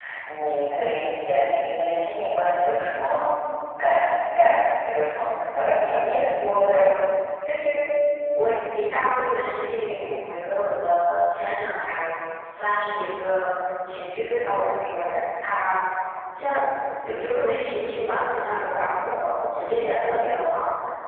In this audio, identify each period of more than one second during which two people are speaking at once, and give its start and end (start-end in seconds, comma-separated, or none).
5.5-6.8